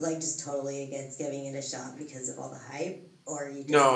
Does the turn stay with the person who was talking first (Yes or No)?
No